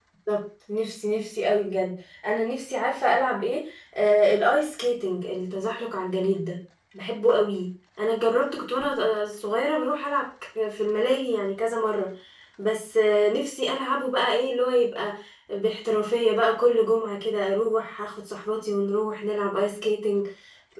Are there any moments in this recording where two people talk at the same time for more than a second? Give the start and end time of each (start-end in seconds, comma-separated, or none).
none